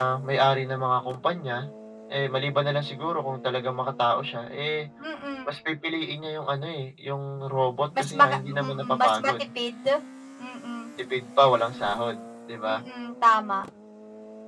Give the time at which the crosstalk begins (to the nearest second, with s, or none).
8 s